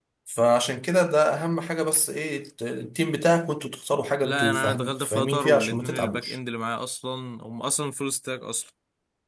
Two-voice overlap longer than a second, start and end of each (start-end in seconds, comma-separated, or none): 4.2-6.4